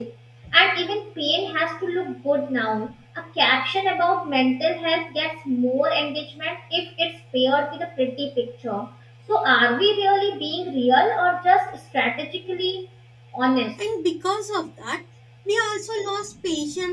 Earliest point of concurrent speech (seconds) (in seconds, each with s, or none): none